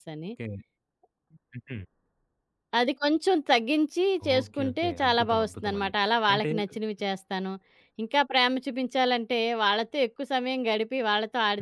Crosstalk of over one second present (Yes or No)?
Yes